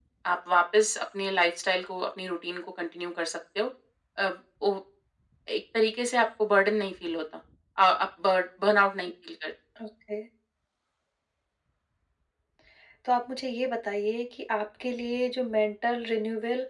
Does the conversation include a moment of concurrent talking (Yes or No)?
No